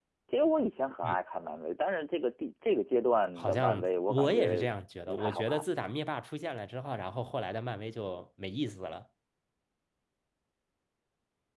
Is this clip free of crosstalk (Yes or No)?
No